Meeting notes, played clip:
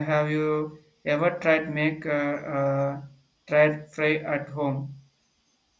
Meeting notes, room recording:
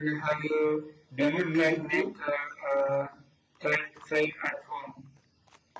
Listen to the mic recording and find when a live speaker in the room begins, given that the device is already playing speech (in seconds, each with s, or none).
1.1 s